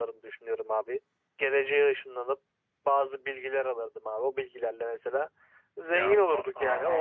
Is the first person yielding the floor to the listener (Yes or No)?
Yes